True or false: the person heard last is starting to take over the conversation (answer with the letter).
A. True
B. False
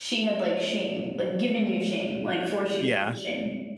A